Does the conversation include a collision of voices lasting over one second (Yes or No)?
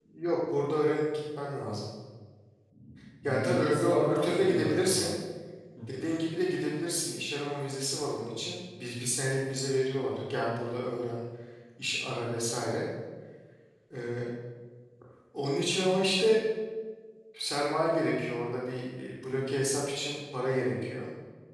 Yes